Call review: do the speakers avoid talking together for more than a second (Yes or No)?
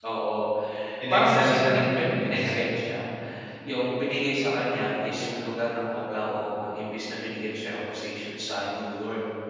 No